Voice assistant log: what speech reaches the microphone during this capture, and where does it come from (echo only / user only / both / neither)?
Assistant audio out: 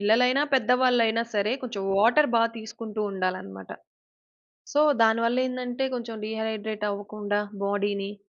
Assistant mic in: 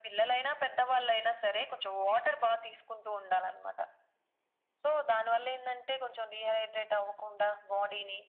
echo only